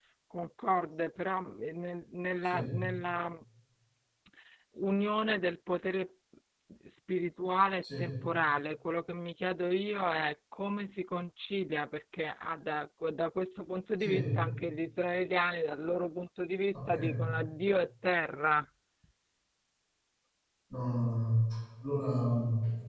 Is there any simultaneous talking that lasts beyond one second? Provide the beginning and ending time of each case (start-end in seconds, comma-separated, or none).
none